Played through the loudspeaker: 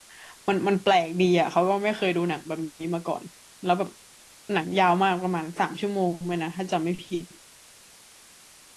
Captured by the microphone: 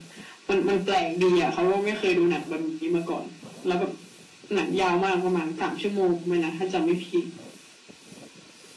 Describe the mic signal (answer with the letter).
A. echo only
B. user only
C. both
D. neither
A